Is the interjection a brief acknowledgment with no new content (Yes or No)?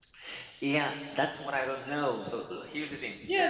No